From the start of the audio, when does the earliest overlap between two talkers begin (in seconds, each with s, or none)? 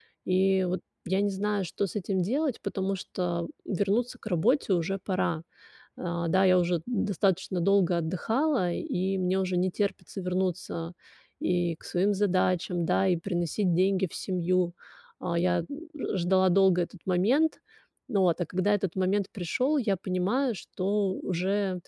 none